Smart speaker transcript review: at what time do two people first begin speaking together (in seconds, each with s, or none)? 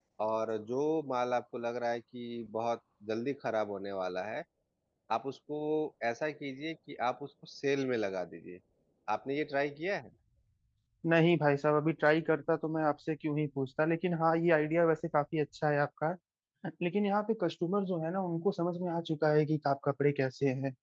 none